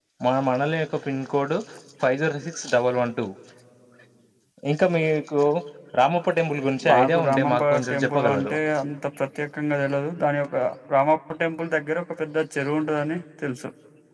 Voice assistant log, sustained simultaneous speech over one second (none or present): present